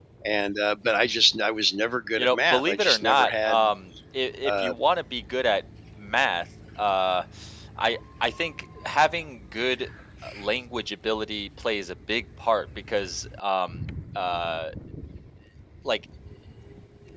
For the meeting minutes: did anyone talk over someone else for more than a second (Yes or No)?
Yes